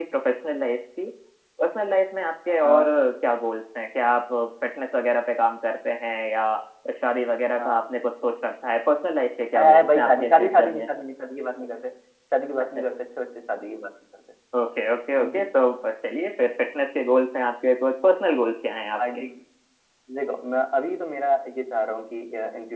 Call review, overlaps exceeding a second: present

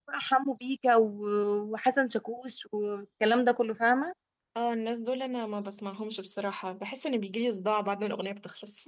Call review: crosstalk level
none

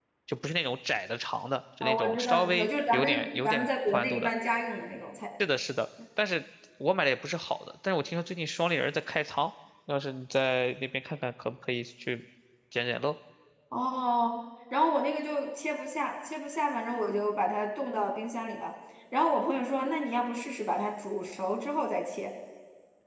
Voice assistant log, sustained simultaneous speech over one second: present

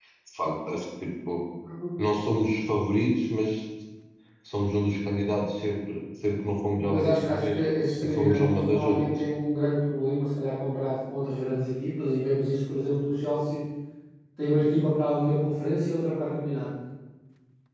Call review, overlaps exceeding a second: present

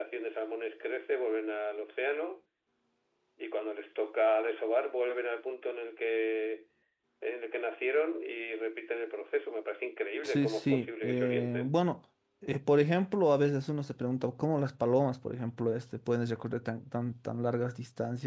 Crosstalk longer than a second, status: present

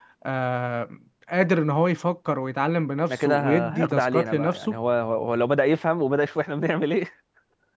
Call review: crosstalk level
present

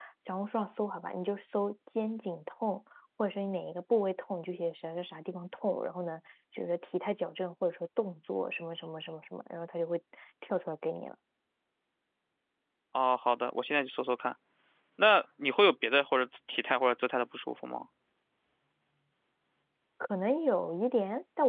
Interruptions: none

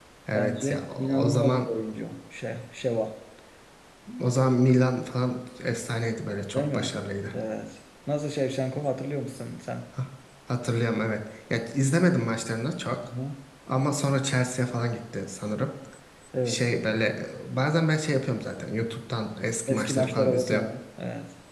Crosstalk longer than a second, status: present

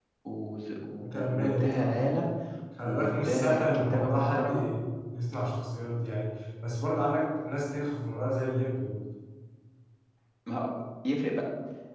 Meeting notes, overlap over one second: present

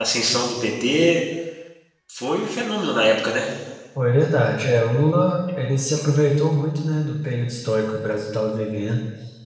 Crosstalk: none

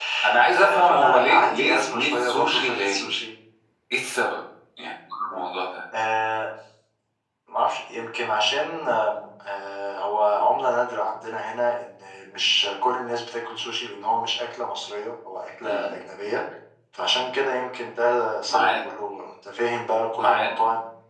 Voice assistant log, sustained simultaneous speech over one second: present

